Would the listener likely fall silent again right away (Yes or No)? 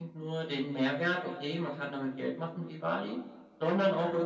Yes